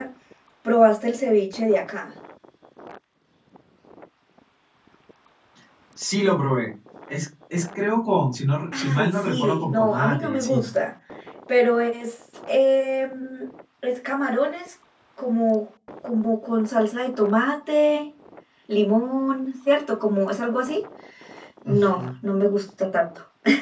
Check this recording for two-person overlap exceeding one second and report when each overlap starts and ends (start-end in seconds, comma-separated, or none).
8.7-10.7